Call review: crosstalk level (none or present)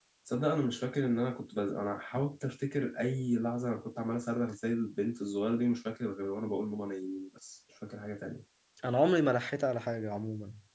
none